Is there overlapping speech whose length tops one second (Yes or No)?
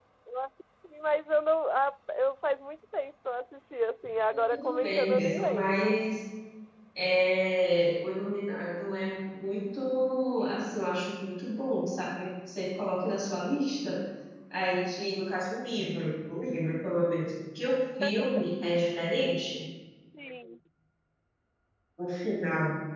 Yes